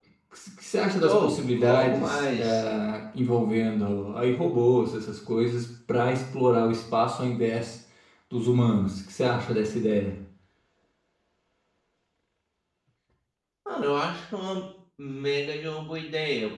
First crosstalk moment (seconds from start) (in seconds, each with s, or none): 1.0 s